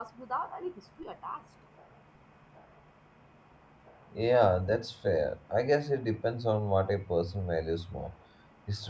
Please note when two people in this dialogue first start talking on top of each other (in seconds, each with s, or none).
none